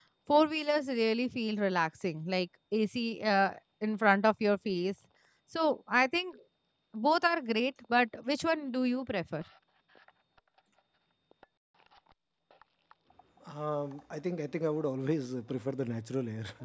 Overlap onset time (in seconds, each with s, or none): none